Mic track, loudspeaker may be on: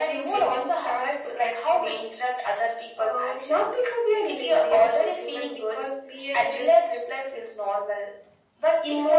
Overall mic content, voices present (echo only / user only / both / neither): echo only